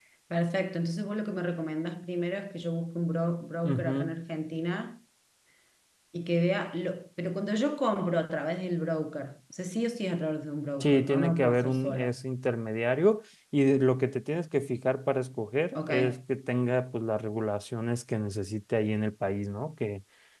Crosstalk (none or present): present